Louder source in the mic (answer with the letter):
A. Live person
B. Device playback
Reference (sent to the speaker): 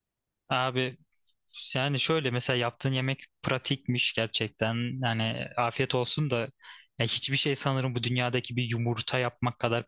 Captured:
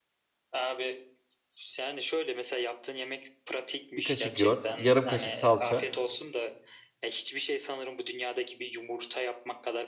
A